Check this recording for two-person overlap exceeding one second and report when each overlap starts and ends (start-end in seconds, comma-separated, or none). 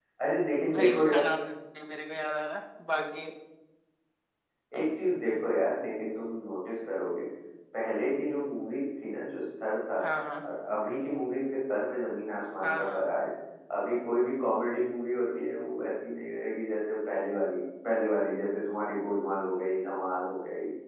none